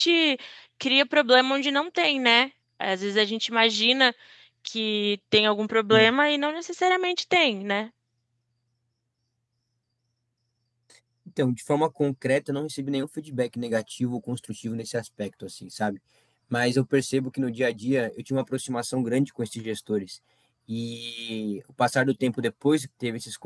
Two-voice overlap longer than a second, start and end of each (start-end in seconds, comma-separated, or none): none